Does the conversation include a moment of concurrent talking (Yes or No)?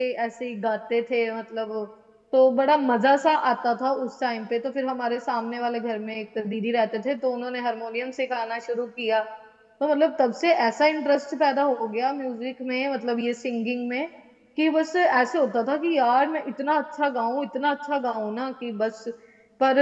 No